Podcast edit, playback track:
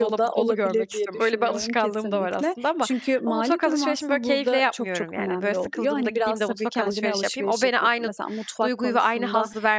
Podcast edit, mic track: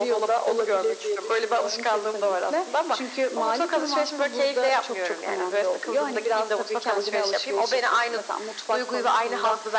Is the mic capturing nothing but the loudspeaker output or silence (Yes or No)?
Yes